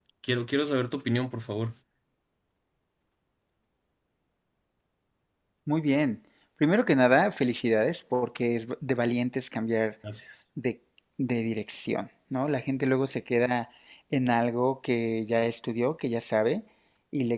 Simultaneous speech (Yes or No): No